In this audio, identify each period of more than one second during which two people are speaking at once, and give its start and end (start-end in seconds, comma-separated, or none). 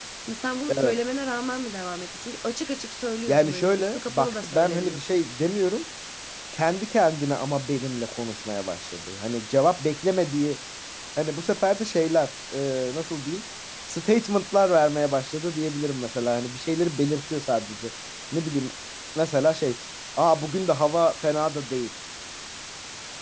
3.3-5.0